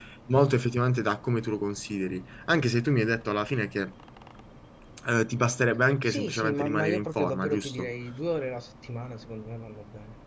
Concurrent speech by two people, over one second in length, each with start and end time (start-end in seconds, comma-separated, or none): 6.0-7.9